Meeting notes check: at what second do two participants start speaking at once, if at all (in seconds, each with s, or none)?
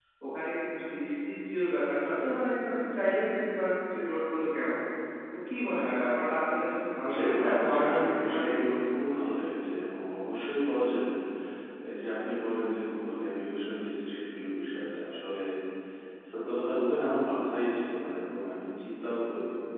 7.0 s